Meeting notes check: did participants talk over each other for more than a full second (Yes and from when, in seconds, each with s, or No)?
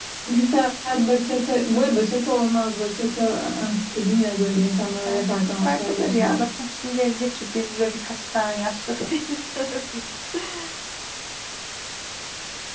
Yes, from 5.0 s